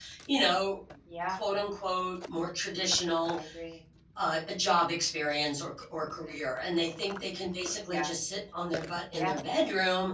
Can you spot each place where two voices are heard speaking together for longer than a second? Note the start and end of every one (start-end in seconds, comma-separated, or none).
none